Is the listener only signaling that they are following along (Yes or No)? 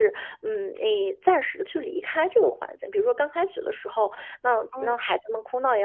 Yes